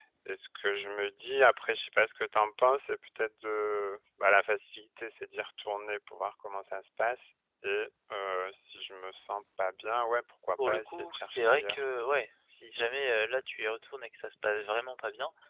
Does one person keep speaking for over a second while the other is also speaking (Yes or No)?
Yes